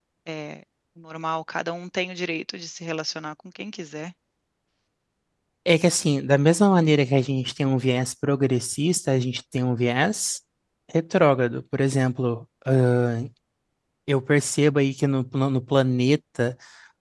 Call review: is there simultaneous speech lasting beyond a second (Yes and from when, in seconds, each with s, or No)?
No